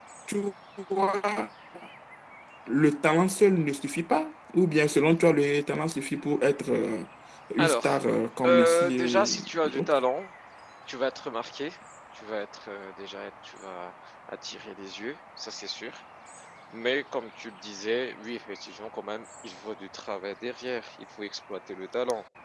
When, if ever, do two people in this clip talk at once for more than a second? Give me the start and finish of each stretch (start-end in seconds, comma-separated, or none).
8.4-10.0